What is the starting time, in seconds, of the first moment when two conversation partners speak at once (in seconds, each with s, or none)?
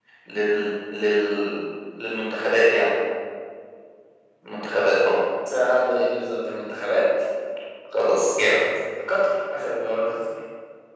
none